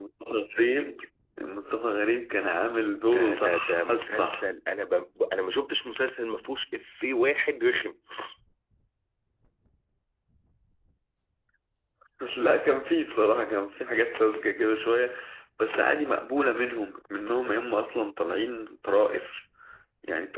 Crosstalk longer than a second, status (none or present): present